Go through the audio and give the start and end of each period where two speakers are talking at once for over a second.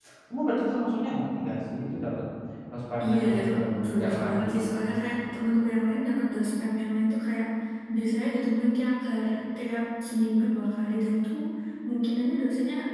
3.0-4.4

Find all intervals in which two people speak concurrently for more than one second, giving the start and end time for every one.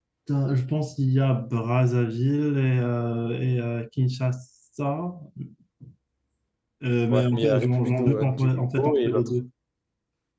7.1-9.3

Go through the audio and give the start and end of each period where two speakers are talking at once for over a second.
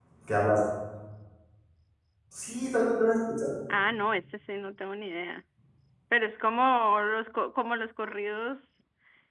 none

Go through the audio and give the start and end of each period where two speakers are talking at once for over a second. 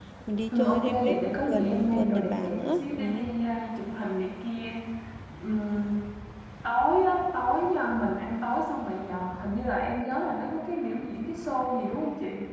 0.5-3.2

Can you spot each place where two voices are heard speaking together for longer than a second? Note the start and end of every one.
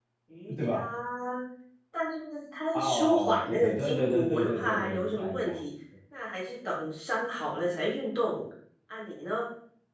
2.7-5.6

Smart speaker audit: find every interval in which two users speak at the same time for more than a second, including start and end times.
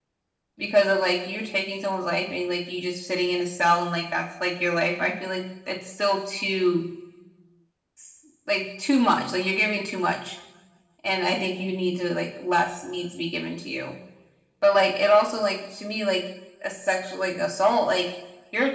none

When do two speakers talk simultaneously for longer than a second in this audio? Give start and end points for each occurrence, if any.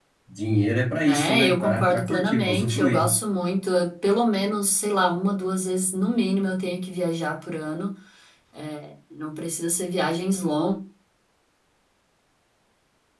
0.9-3.1

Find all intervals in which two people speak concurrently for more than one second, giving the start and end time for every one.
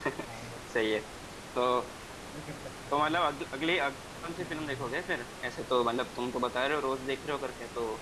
none

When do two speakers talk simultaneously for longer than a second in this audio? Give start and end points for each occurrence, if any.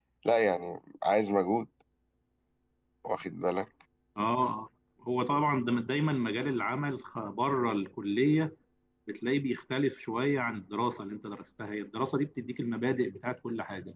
none

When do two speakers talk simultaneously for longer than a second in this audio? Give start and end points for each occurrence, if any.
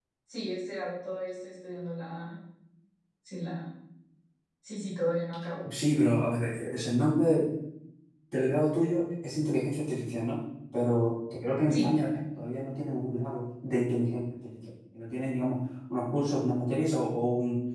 none

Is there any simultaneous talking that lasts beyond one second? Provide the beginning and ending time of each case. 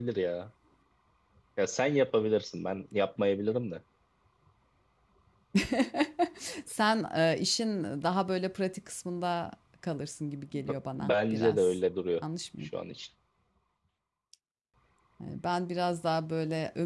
10.5-11.8

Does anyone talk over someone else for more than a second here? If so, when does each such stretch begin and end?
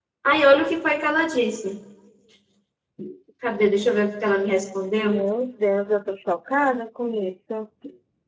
none

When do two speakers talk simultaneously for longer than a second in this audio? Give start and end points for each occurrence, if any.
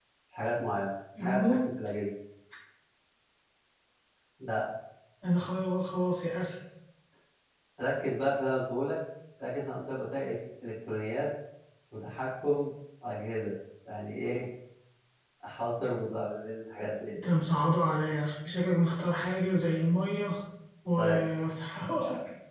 none

